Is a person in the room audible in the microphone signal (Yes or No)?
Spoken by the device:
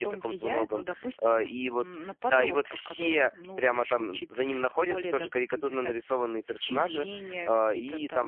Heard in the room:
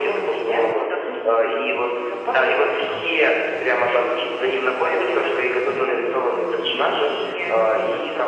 No